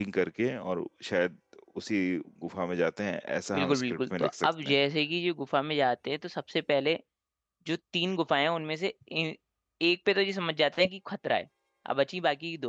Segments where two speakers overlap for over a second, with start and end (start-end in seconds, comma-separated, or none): 3.5-4.7